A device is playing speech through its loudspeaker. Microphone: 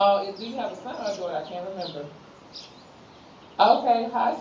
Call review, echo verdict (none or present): none